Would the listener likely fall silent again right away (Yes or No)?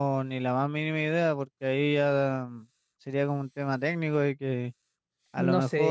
Yes